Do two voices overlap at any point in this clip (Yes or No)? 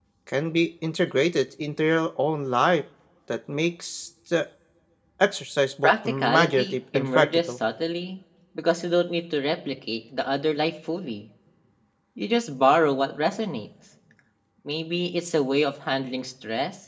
Yes